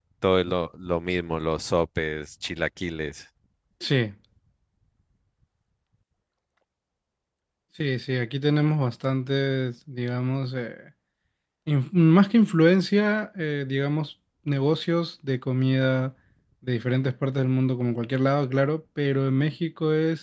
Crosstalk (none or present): none